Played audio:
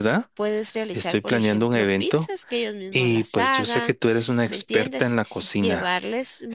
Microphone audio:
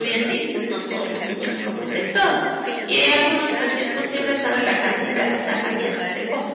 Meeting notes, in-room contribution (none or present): present